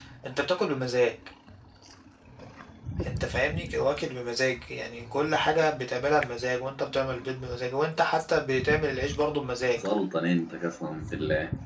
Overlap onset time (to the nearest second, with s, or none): none